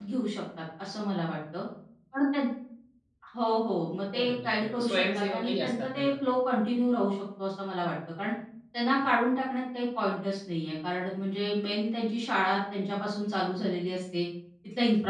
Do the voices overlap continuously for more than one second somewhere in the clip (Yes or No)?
Yes